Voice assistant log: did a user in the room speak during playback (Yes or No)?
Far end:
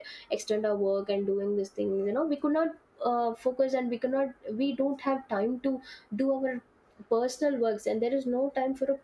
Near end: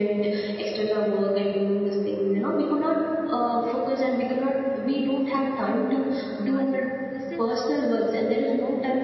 Yes